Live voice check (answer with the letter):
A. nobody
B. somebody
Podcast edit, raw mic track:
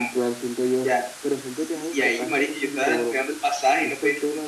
A